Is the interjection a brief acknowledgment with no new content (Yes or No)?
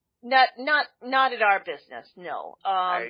Yes